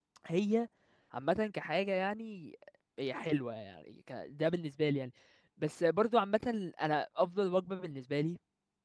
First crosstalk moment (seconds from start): none

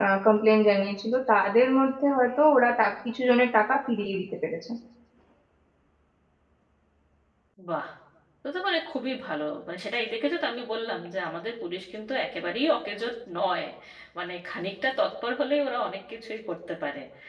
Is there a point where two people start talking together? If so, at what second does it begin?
none

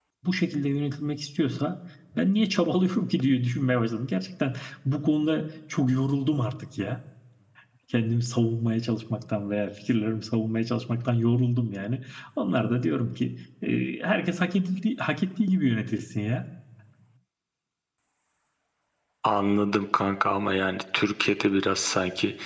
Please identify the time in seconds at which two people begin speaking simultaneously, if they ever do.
none

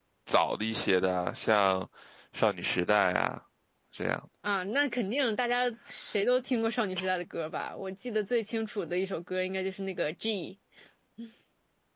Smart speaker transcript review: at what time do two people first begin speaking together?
none

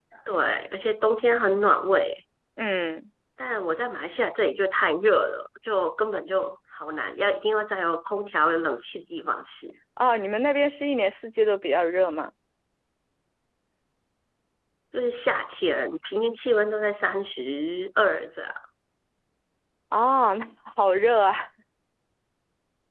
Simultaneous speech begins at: none

